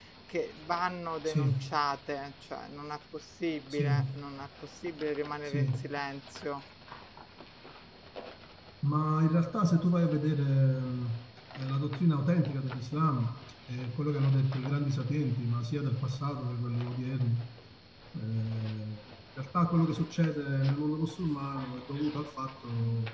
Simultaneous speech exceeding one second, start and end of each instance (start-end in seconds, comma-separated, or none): none